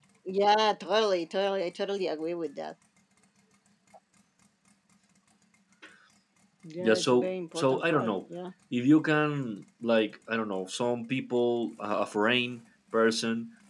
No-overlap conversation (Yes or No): No